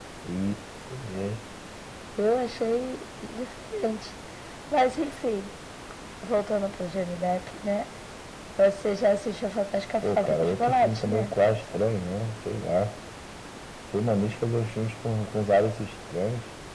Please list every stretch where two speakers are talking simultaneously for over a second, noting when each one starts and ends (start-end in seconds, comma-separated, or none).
10.0-11.3